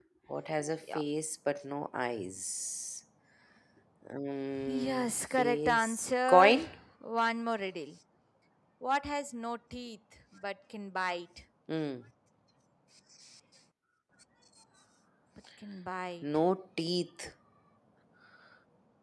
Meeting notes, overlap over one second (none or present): present